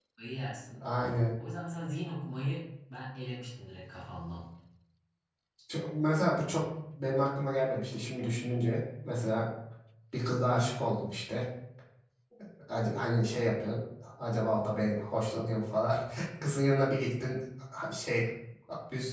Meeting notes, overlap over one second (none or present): none